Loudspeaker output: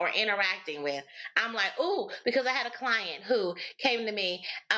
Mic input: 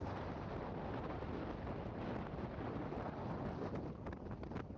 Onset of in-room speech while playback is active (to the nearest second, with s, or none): none